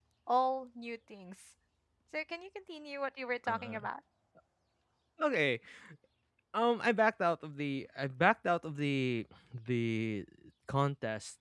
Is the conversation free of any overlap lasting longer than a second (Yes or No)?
Yes